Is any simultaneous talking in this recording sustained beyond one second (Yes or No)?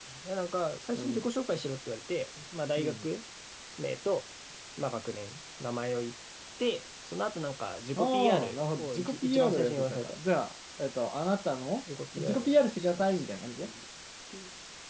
Yes